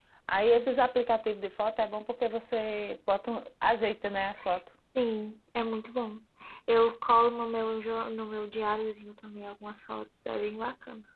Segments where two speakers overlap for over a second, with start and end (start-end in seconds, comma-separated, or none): none